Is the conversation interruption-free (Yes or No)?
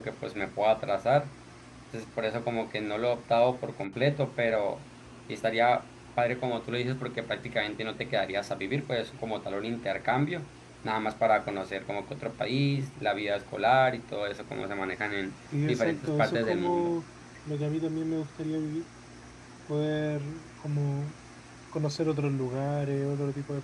No